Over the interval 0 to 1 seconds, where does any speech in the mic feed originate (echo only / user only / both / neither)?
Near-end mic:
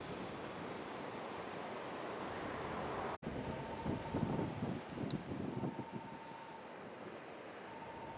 neither